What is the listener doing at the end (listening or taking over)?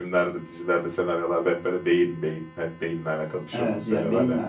taking over